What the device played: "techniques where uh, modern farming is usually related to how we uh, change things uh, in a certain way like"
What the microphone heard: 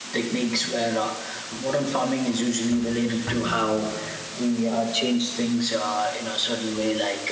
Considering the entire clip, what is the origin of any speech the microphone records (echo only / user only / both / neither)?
echo only